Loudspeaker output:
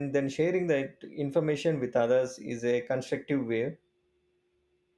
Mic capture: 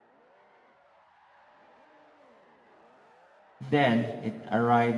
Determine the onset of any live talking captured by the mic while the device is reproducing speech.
4 s

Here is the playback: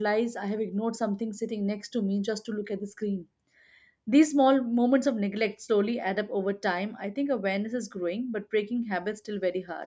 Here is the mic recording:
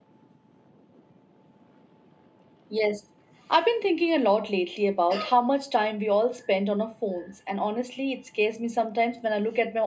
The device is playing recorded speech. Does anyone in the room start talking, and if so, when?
3 s

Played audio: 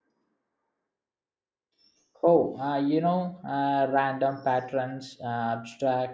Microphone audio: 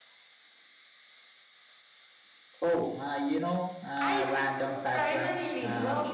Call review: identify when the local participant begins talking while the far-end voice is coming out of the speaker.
4 s

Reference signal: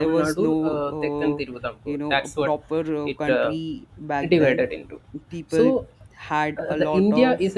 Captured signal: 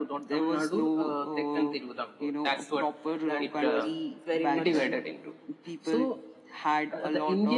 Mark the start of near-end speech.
3 s

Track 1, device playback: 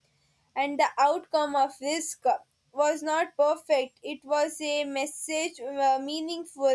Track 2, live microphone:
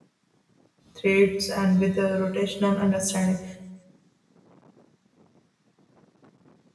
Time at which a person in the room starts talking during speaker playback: 1 s

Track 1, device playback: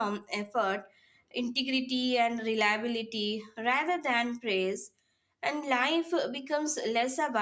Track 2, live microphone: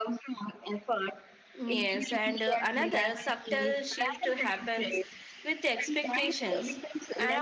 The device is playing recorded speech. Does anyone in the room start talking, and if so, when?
2 s

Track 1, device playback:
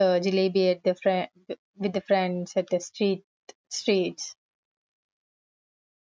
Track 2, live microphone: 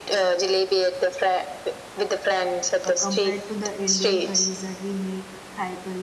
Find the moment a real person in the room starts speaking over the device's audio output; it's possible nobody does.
3 s

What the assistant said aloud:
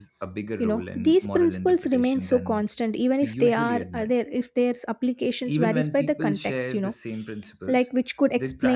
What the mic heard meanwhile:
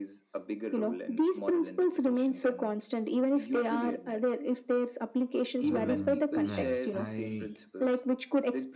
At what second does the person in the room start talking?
6 s

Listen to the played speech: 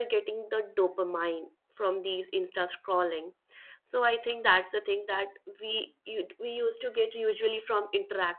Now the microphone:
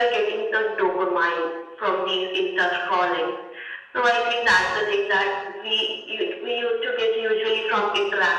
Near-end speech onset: none

